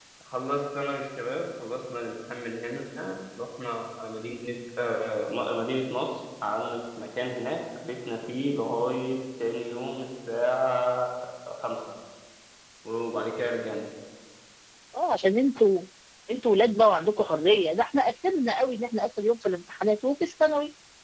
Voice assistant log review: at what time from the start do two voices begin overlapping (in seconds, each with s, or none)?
none